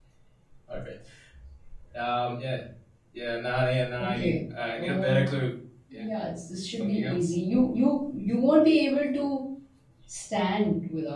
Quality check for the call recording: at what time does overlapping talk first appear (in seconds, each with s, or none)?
4.0 s